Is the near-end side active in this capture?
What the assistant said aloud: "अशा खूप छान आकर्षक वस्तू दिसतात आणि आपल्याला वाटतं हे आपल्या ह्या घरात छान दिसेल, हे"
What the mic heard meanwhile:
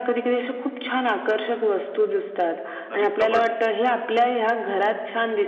Yes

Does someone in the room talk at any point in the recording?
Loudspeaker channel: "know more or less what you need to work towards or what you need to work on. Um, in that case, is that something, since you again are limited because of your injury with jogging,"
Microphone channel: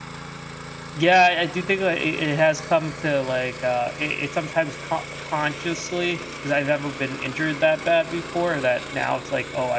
Yes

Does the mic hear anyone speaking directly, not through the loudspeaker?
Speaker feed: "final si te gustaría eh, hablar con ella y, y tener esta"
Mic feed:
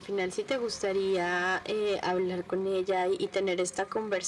No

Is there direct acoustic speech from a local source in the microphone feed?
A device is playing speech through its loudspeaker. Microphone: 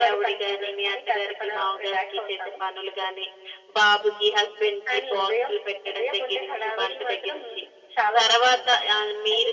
No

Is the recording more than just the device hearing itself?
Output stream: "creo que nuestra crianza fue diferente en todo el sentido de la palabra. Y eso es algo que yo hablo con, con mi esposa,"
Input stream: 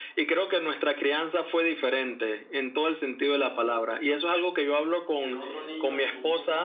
Yes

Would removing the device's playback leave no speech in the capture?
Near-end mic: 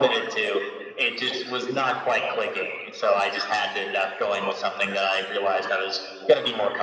Yes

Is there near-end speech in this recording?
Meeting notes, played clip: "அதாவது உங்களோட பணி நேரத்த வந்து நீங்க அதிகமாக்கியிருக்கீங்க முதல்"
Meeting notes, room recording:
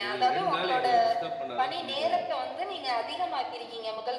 Yes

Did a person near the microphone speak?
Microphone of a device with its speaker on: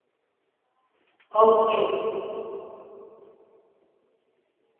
Yes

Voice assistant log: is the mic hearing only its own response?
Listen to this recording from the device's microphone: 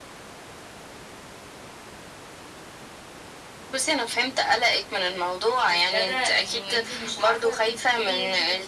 No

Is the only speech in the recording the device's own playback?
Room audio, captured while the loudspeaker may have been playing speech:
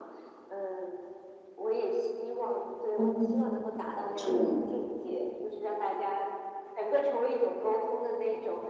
No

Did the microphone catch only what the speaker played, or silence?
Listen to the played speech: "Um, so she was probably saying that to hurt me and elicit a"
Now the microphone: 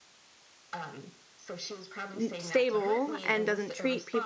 No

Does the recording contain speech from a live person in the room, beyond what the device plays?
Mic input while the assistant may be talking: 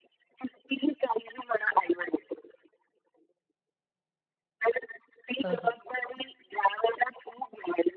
Yes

